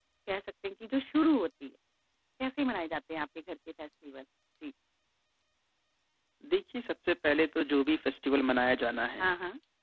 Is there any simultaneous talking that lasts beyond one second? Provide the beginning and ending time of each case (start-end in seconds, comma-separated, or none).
none